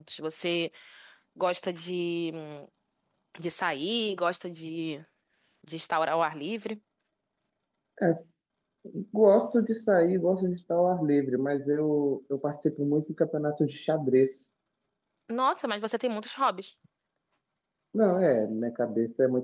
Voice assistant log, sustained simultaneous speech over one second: none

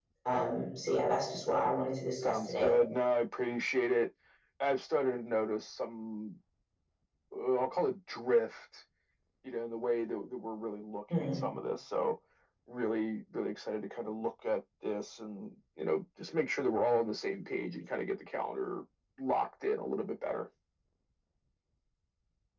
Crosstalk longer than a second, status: none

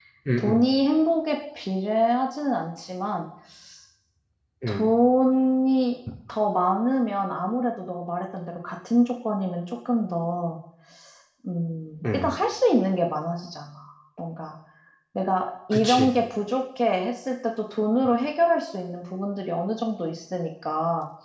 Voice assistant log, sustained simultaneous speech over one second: none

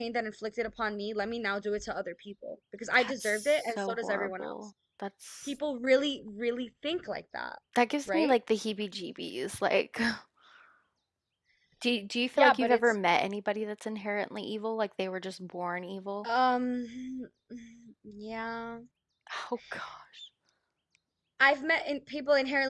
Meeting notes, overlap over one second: present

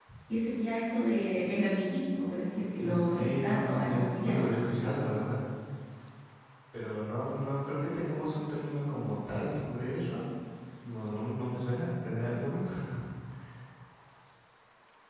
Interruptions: present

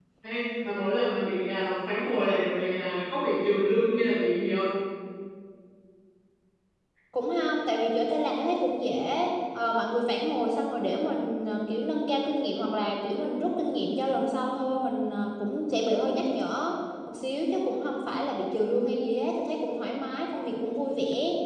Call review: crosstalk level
none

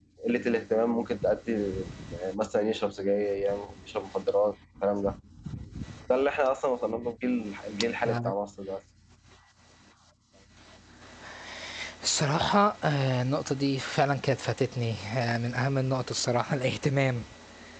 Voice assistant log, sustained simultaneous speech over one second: none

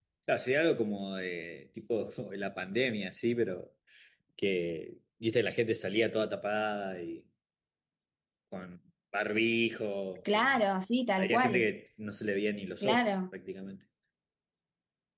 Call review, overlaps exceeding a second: none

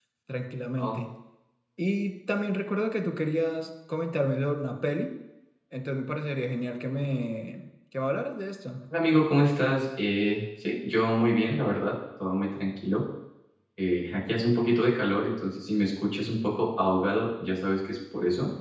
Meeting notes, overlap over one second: none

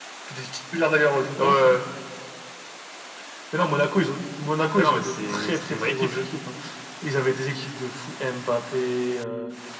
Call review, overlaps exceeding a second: present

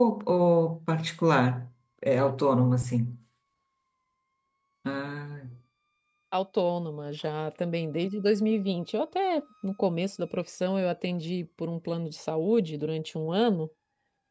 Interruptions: none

